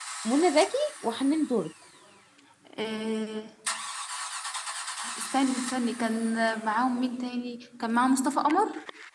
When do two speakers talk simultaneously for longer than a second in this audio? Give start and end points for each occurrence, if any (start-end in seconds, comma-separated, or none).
none